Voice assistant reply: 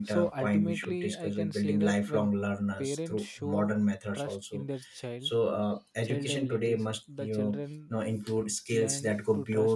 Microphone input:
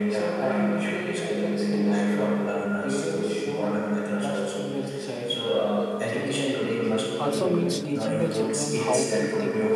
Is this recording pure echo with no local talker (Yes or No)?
No